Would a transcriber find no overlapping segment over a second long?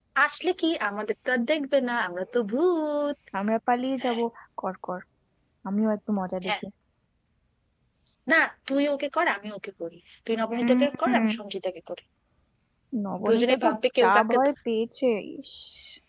No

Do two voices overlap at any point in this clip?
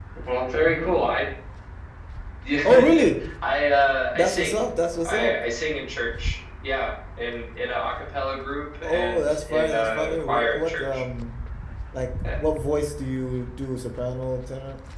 Yes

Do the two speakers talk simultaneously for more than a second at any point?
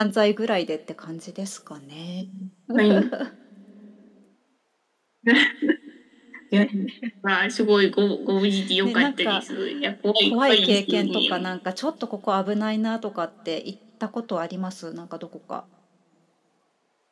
Yes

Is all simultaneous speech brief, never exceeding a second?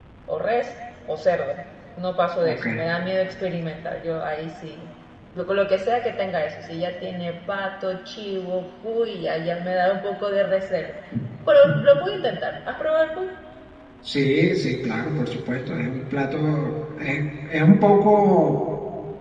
Yes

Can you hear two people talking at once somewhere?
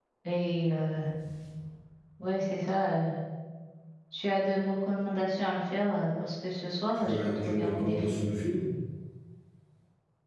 Yes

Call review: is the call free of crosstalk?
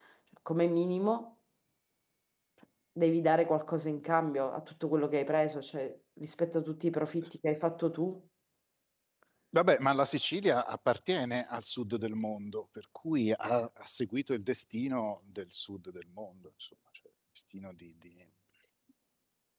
Yes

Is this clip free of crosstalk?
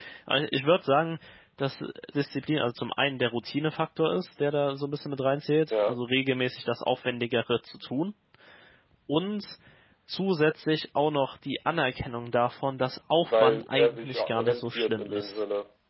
No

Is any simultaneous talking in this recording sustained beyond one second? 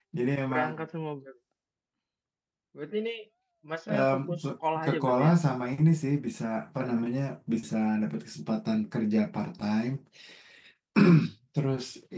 Yes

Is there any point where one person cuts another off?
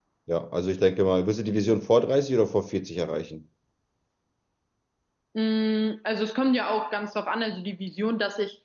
No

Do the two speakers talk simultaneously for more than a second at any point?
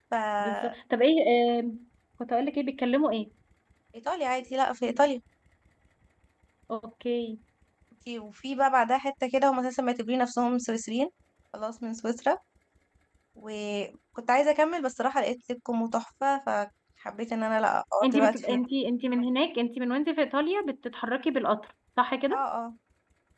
No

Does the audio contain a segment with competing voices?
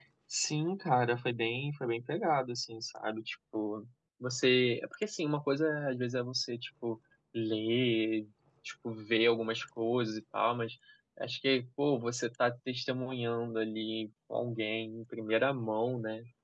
No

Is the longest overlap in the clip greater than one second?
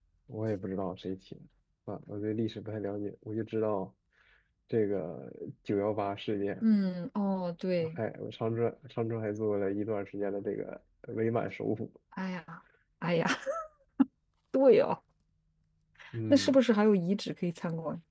No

